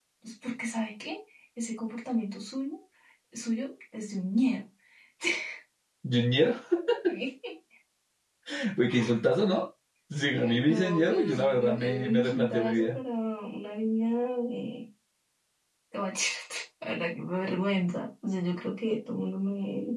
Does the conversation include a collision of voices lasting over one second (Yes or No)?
Yes